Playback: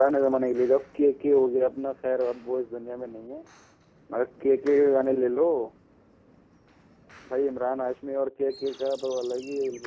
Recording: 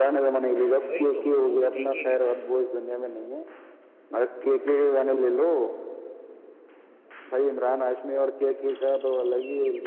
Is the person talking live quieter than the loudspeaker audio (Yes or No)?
Yes